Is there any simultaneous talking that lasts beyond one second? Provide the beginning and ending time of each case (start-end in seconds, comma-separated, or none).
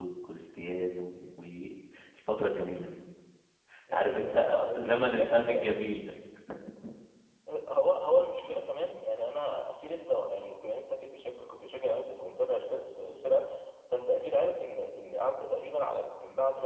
3.9-5.7